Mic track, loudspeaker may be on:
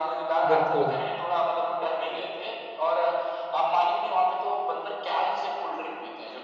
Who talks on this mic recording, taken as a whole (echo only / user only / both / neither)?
both